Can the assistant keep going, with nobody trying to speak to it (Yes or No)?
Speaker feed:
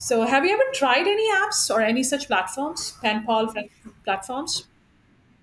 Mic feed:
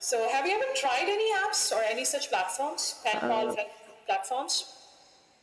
No